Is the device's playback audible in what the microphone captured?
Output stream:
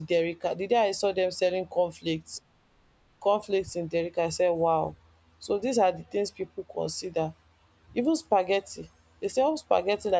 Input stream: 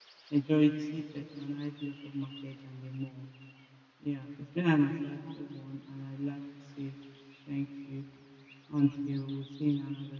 No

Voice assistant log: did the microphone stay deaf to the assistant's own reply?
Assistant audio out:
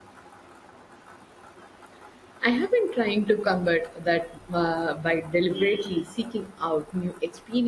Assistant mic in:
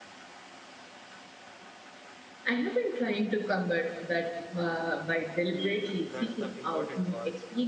No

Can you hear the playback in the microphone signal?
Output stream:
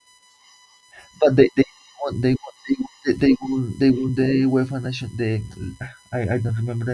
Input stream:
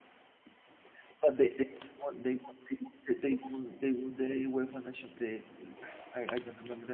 Yes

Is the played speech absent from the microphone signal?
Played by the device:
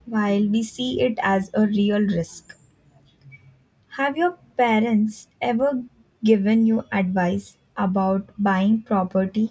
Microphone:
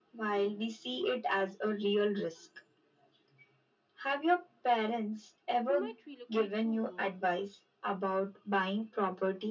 No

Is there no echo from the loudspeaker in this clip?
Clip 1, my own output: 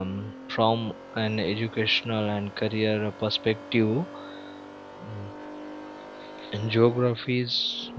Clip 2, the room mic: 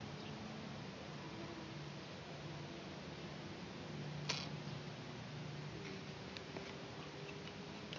Yes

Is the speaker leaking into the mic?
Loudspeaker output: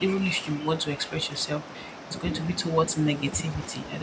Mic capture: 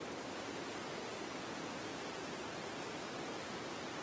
No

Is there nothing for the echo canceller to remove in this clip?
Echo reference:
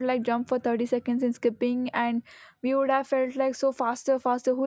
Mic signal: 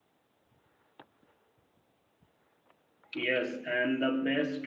Yes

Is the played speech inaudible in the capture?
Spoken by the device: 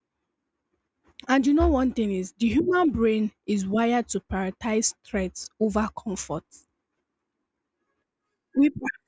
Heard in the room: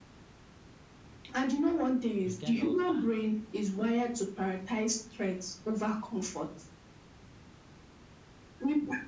No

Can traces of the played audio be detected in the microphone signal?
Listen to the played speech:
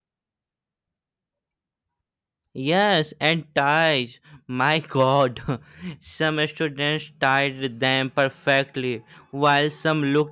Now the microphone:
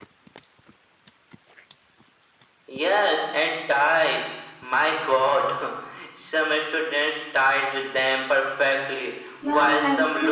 Yes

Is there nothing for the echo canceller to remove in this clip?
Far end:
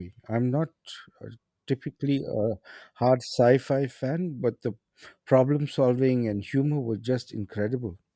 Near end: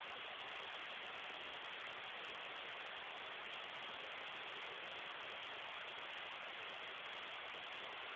Yes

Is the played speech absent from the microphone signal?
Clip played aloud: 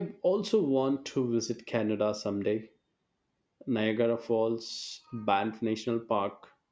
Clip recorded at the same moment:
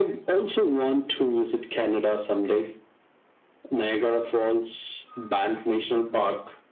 No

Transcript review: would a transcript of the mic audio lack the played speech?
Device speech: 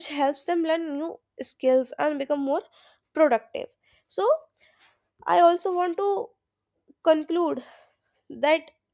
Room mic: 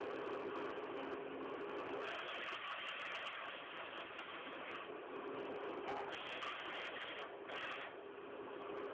Yes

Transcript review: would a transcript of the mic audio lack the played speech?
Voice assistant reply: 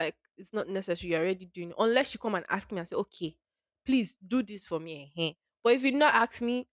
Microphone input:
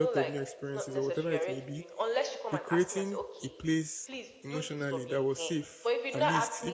No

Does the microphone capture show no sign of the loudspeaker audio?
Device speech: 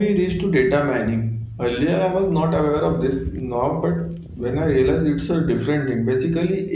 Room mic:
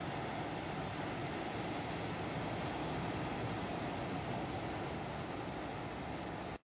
Yes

